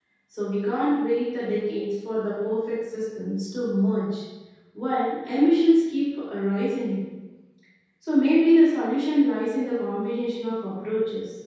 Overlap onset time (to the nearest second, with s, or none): none